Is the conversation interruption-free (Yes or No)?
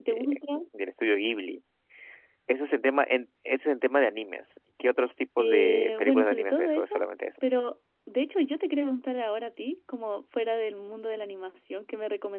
No